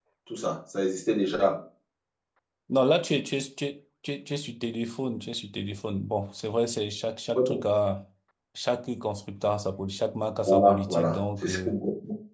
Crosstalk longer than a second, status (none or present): present